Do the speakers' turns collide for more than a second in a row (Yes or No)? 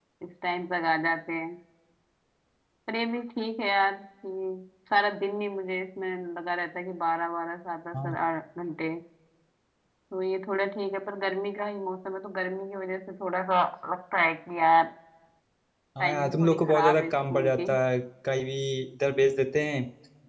Yes